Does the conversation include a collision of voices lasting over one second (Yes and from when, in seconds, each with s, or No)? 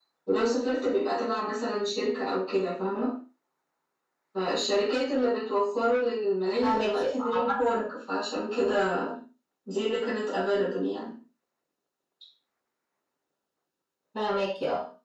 Yes, from 6.6 s